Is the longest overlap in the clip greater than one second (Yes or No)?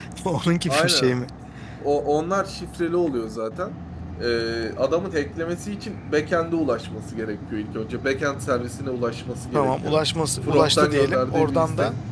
Yes